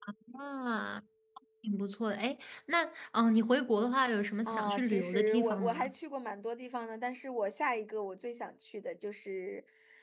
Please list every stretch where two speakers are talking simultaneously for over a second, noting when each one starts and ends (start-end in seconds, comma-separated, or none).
4.4-5.9